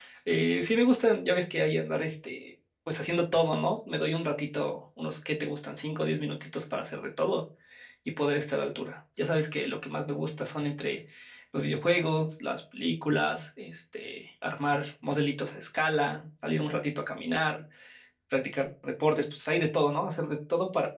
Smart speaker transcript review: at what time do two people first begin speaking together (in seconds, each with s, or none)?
none